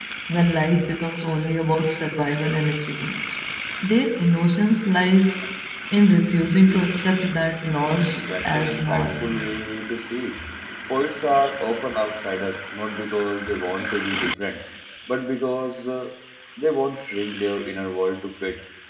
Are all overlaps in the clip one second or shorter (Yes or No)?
No